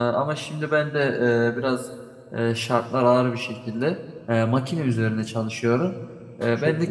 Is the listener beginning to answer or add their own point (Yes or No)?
No